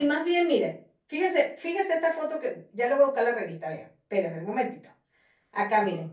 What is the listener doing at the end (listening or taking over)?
listening